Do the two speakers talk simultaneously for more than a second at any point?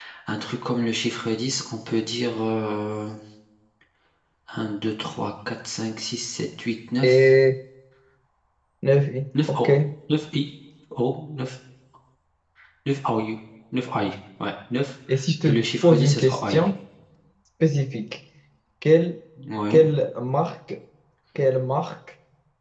Yes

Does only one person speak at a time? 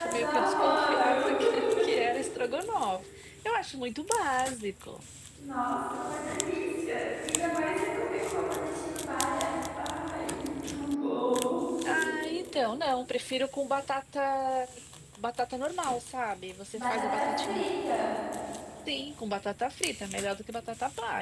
No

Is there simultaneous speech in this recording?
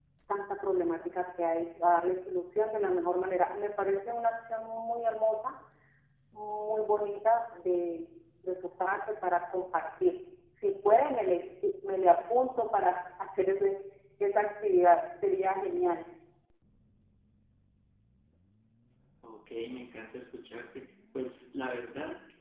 No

